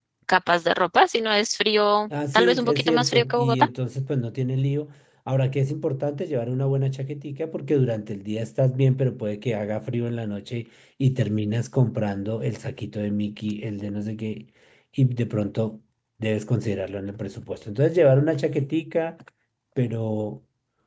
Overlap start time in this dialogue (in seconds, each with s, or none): 2.1 s